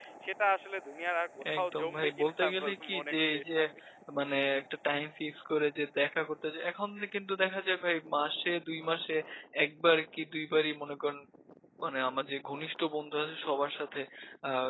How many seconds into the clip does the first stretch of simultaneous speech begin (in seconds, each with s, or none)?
1.6 s